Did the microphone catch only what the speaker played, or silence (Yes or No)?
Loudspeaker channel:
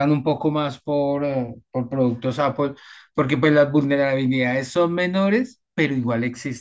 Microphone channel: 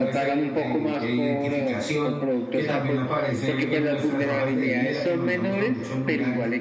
No